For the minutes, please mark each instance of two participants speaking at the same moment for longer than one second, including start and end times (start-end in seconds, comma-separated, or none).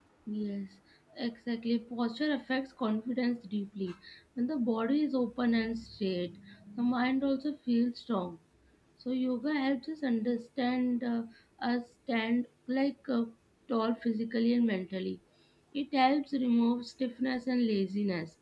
none